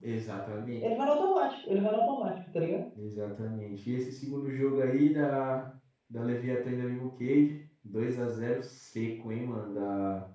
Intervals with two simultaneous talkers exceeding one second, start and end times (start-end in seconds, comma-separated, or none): none